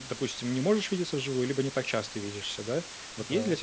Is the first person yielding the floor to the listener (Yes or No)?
No